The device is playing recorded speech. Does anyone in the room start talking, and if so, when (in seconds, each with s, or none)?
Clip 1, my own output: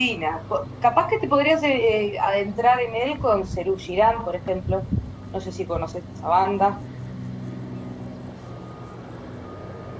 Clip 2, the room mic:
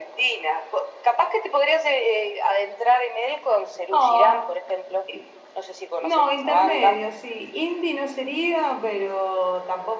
3.9 s